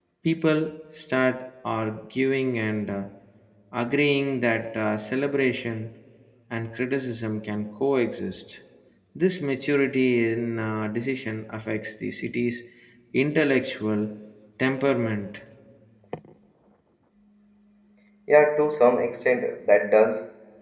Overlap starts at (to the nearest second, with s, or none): none